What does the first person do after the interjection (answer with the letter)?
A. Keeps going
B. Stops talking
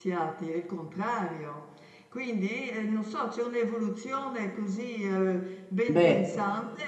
A